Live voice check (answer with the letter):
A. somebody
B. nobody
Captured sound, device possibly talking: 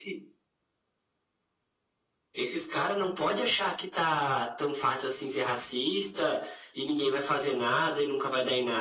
B